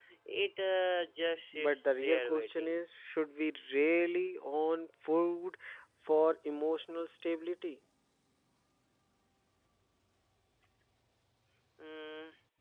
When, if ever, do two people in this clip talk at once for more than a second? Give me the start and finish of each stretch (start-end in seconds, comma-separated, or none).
1.5-2.8